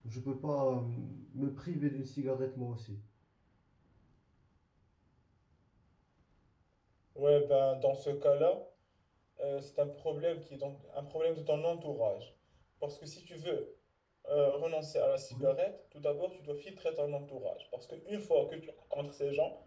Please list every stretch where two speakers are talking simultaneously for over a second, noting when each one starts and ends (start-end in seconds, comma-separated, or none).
none